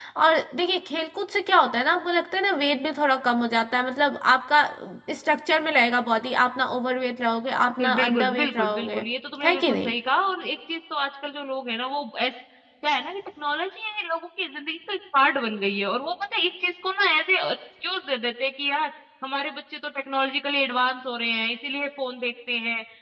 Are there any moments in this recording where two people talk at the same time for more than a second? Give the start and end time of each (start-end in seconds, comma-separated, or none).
7.8-9.0